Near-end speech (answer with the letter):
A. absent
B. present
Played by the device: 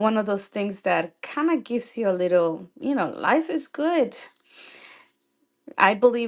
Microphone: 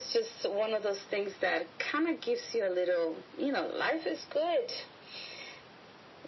A